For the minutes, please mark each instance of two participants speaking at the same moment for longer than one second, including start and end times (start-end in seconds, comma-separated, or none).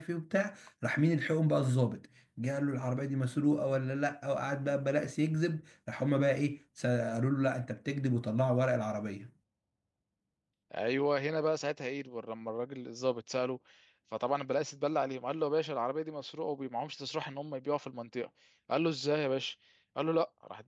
none